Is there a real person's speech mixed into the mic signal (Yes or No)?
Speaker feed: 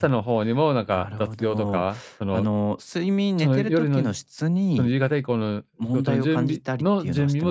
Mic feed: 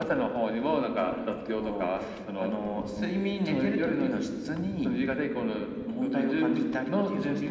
No